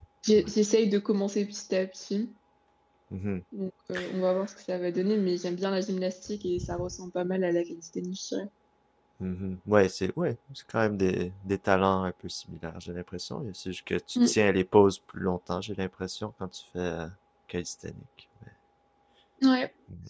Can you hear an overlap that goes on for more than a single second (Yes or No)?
No